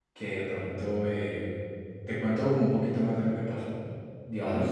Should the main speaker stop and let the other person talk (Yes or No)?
No